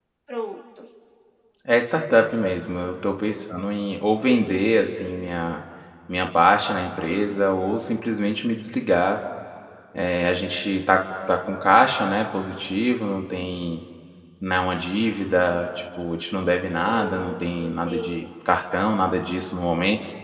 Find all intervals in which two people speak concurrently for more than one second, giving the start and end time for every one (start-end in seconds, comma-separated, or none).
16.9-18.2